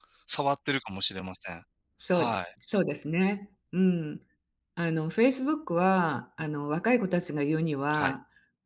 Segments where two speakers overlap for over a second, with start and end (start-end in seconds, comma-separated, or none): none